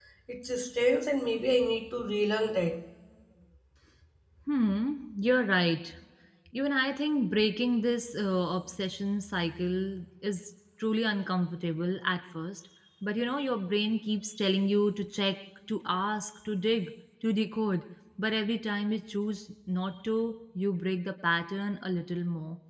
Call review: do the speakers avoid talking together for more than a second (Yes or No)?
Yes